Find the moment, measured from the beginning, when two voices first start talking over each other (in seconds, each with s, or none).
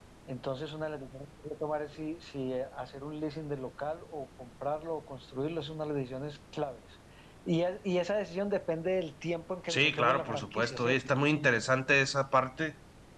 9.7 s